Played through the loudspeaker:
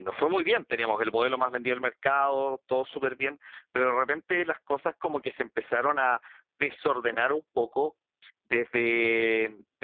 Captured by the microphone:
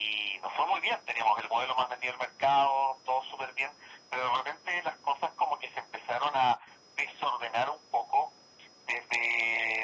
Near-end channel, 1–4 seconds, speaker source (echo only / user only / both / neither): echo only